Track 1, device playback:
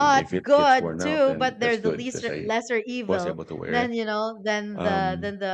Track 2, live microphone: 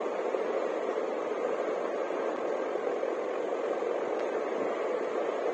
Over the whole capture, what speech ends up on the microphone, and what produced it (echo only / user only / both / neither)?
neither